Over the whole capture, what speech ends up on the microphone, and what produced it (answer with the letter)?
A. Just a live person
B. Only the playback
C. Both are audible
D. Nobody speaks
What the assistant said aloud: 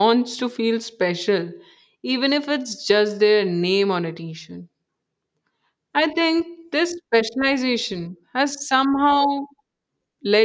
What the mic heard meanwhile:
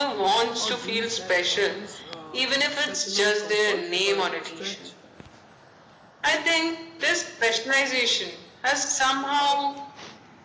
C